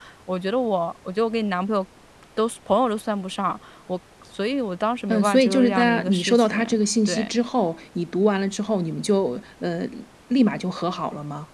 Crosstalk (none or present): present